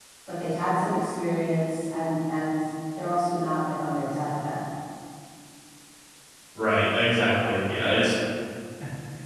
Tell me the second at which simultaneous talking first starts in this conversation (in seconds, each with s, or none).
none